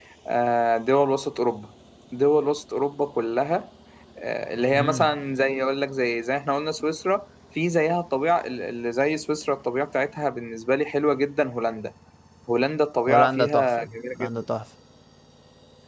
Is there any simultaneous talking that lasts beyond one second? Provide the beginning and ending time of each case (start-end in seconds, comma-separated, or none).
13.1-14.4